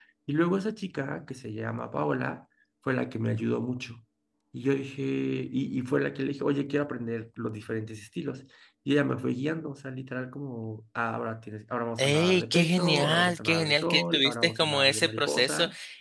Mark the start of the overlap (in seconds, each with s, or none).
12.0 s